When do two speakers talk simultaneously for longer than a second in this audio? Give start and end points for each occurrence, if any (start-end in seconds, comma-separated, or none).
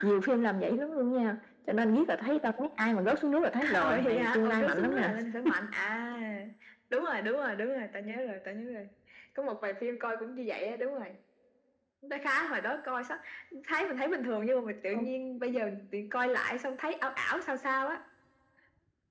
3.8-5.1